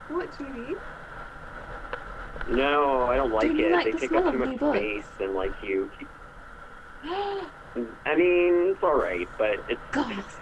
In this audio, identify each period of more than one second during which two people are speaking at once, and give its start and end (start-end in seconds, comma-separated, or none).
3.4-5.1